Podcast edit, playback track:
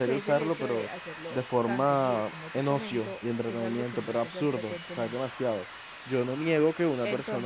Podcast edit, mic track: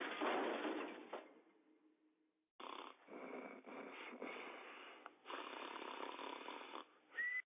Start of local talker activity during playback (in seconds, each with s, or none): none